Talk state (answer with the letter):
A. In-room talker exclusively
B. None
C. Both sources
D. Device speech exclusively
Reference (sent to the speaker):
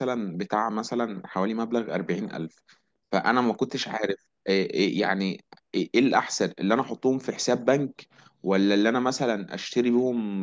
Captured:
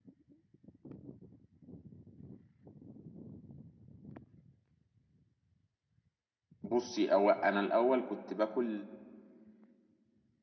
A